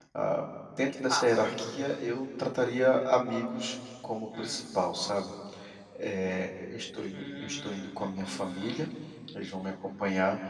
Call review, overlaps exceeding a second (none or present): present